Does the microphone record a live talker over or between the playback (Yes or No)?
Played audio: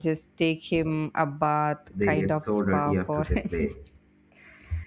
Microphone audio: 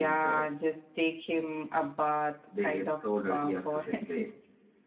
No